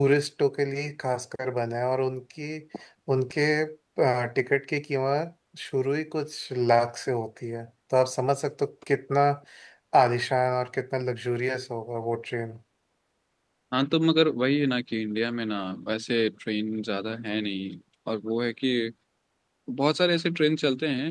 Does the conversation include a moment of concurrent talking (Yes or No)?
No